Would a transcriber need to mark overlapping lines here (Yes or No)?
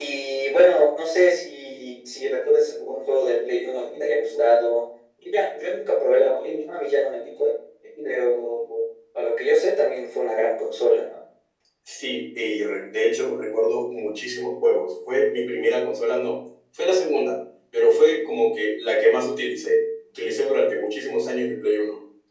No